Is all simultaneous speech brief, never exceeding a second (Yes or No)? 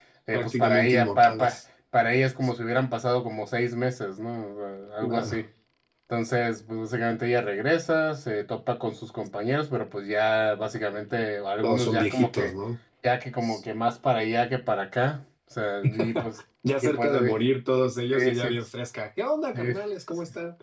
No